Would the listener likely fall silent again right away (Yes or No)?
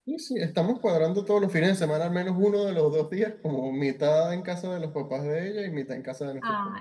No